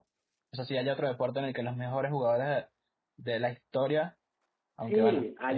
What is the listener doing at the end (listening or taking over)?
taking over